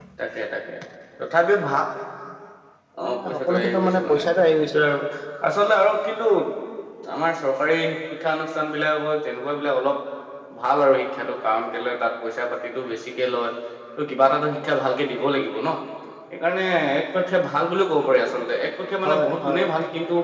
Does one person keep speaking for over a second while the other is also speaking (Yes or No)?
Yes